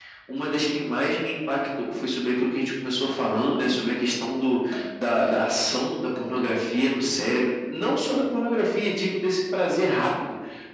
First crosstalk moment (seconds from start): none

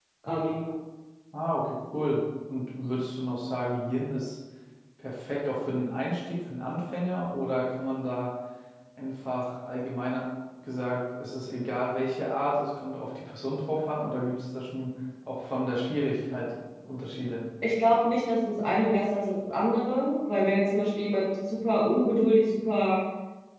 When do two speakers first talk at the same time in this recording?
none

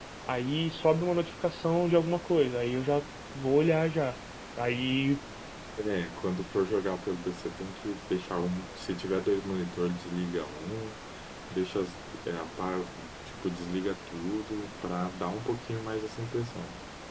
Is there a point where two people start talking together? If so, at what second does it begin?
none

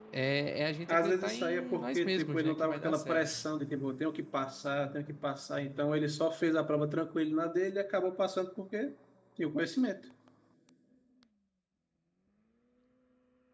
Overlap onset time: 1 s

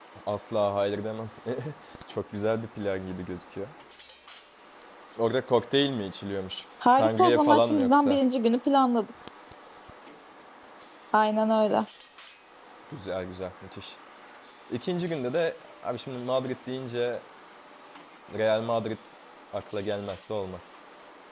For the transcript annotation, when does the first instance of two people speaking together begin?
7 s

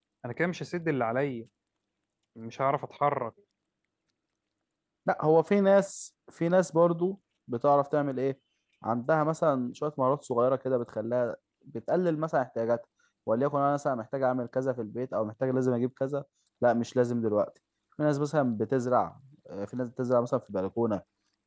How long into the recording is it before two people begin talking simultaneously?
none

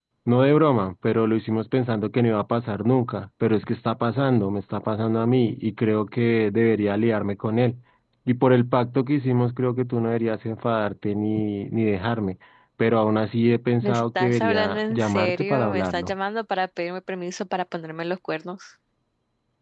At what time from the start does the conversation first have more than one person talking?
14 s

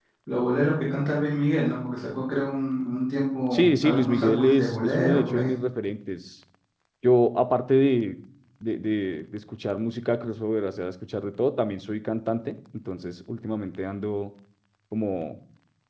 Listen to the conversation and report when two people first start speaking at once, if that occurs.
4 s

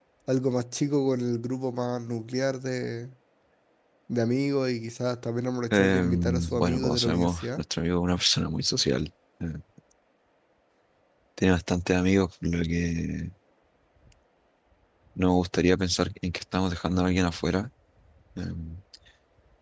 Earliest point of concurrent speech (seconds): 6 s

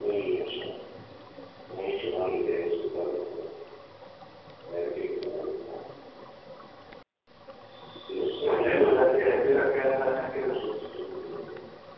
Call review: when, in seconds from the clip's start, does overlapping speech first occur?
8 s

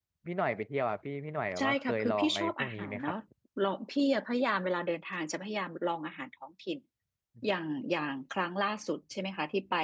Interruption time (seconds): 2 s

